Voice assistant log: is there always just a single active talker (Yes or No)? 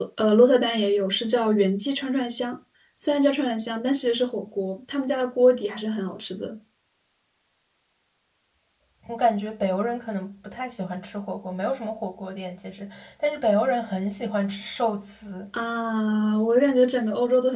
Yes